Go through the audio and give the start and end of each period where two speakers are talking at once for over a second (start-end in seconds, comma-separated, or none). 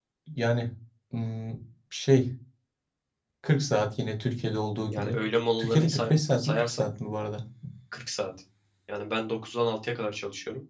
5.6-6.9